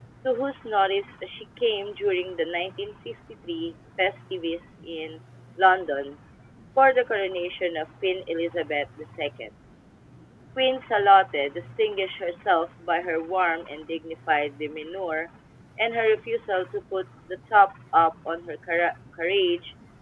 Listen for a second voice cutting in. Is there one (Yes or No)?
No